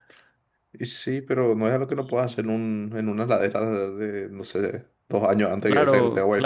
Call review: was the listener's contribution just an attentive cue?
No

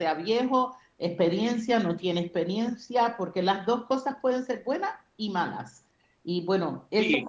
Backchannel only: No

